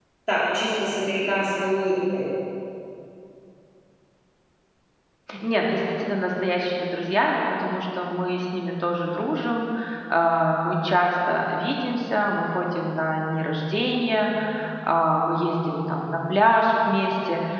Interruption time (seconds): none

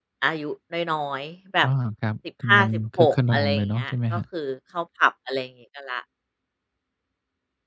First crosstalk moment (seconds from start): 2.5 s

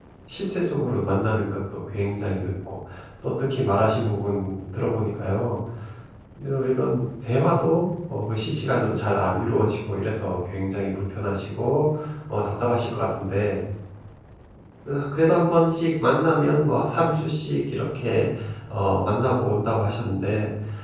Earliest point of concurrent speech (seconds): none

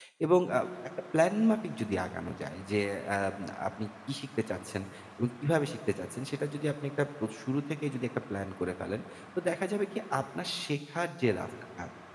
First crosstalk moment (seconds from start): none

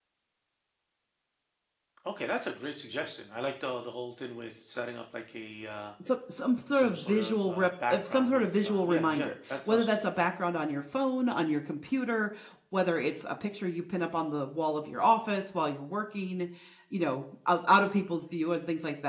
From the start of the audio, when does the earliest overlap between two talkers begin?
6.7 s

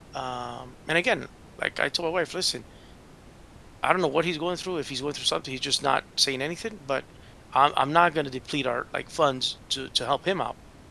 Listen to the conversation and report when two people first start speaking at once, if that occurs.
none

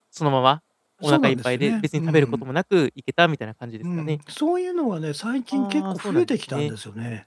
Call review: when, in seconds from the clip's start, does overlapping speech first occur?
1.0 s

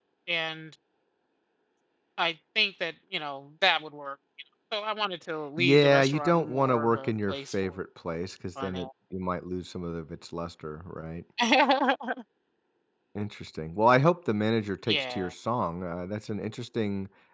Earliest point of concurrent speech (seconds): 5.6 s

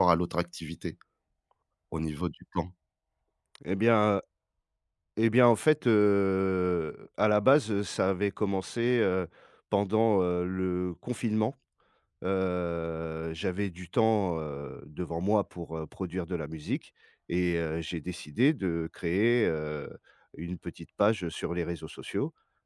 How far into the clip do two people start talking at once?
none

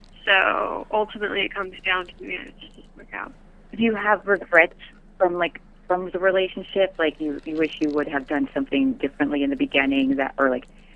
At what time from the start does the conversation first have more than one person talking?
none

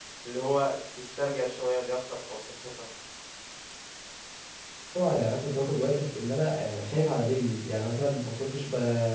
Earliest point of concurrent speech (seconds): none

